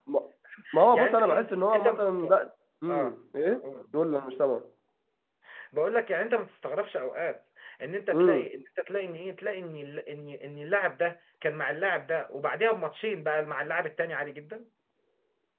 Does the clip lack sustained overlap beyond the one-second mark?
No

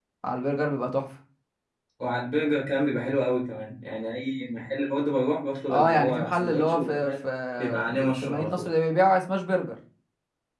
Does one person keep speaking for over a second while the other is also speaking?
Yes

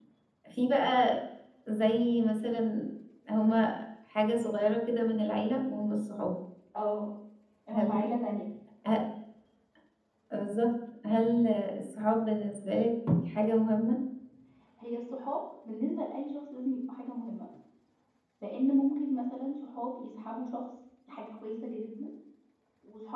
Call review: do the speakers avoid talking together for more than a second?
Yes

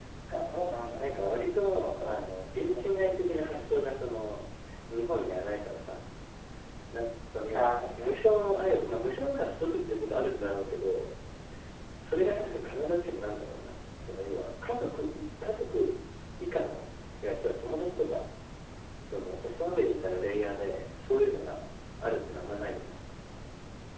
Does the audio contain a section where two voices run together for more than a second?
Yes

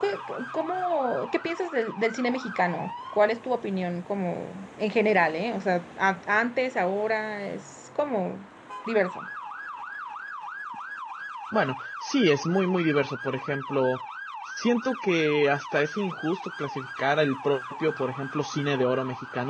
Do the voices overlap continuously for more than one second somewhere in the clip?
No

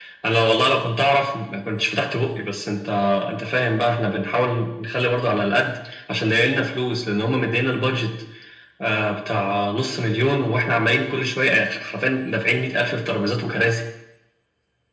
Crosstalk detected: No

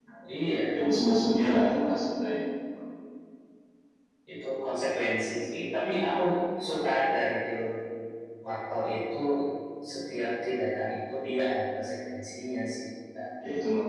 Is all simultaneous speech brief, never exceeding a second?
Yes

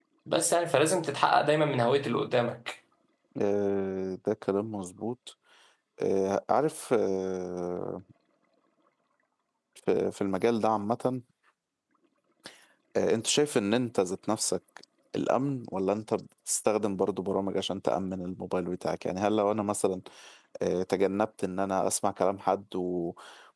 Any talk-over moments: No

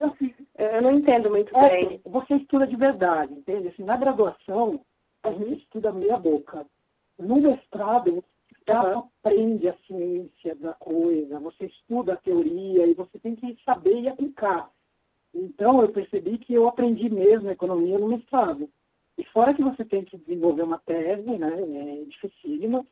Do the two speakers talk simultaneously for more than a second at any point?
No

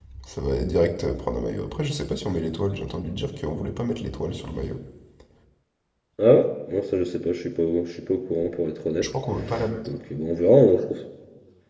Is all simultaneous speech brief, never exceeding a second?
Yes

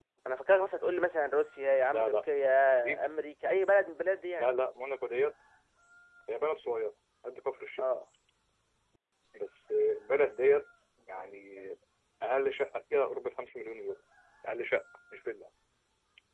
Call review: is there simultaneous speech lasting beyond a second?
No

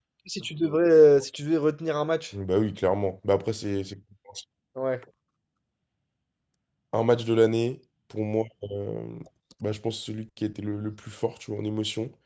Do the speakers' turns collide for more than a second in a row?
No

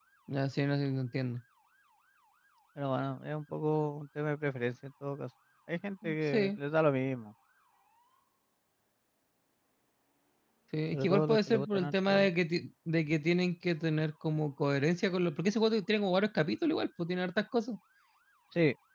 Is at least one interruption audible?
Yes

